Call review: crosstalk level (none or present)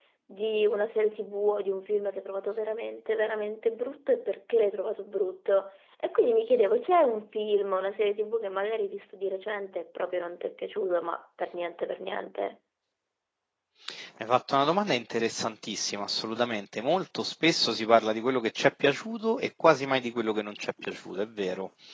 none